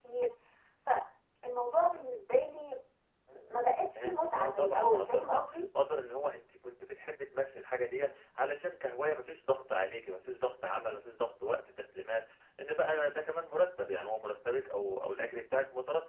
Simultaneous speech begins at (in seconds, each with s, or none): 4.0 s